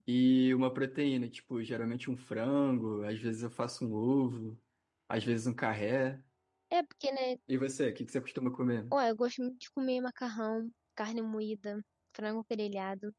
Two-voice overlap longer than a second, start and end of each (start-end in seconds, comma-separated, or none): none